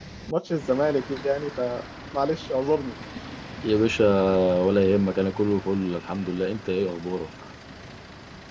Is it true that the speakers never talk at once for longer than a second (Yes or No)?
Yes